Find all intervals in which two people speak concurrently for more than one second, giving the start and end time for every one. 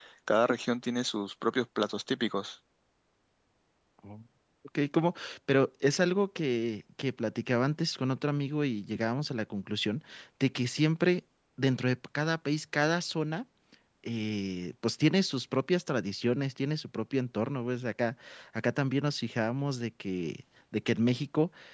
none

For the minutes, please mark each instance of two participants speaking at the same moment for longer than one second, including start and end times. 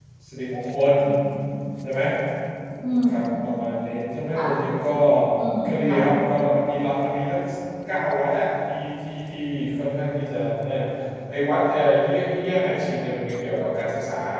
none

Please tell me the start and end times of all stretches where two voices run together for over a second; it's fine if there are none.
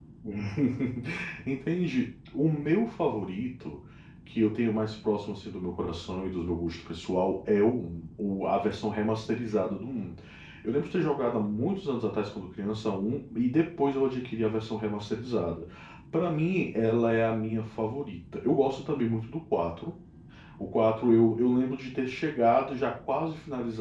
none

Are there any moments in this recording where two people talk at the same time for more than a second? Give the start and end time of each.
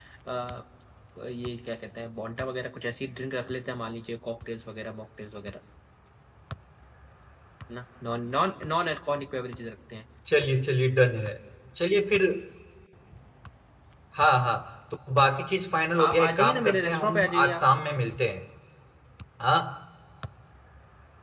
16.1-17.6

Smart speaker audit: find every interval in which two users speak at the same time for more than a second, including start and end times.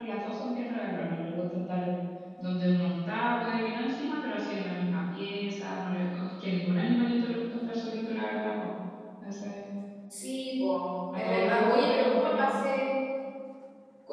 11.1-12.6

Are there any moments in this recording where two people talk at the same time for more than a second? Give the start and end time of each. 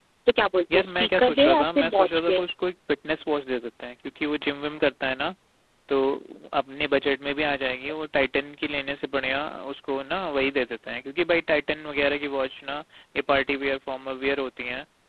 0.7-2.4

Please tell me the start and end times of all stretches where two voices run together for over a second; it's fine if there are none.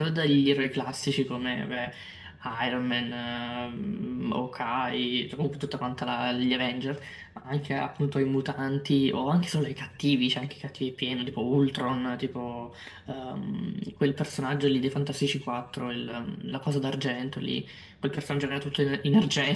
none

